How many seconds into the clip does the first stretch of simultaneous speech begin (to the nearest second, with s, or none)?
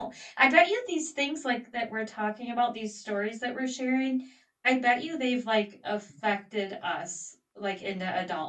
none